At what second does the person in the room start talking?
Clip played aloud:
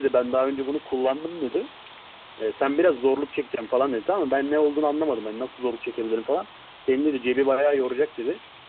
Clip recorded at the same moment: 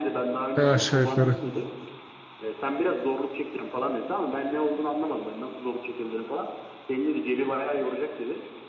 0.6 s

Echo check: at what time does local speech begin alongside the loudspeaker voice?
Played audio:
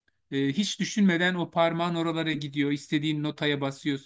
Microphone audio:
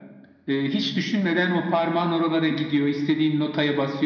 none

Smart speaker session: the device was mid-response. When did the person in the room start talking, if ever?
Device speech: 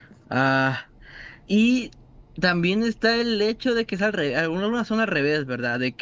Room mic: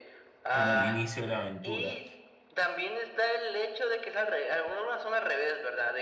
0.5 s

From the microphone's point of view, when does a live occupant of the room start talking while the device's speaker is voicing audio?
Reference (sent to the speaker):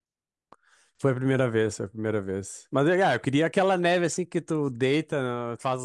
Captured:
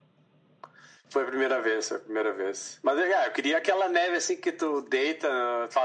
none

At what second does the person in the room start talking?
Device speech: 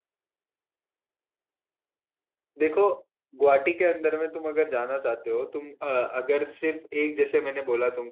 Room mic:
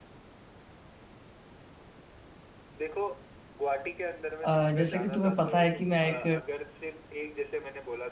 4.4 s

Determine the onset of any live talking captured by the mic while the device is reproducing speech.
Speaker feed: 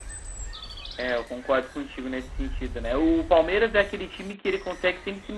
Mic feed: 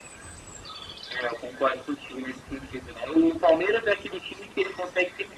none

